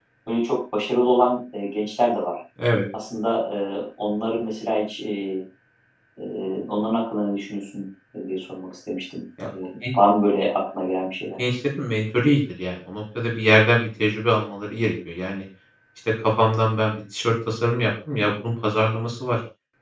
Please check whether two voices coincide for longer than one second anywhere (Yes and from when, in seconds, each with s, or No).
No